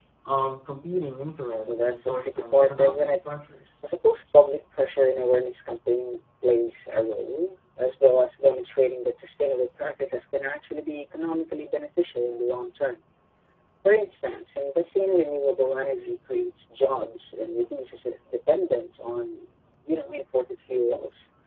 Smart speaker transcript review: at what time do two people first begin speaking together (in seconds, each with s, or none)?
1.7 s